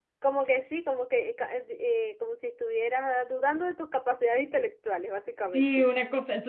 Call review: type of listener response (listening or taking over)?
taking over